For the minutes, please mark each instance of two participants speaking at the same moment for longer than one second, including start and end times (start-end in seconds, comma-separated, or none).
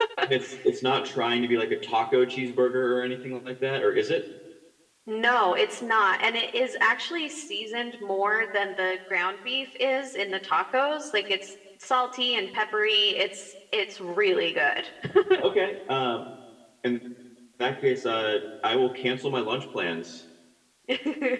none